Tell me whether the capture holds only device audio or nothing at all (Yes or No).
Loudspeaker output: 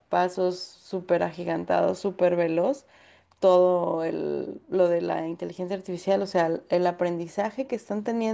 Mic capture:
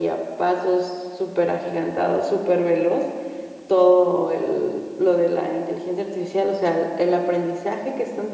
Yes